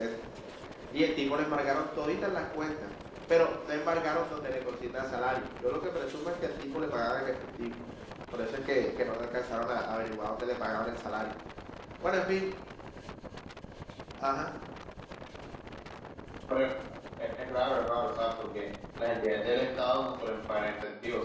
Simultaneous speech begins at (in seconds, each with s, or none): none